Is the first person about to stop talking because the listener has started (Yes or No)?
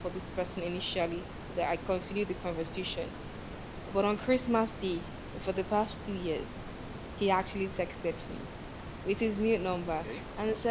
No